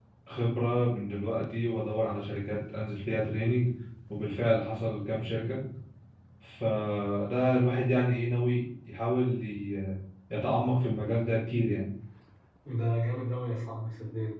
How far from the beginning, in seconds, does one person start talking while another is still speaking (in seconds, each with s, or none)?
none